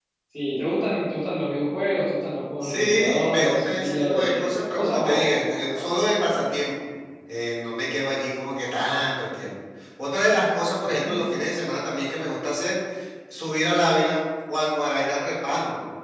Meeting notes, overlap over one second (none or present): present